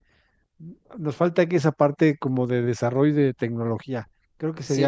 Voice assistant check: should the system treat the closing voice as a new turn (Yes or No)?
Yes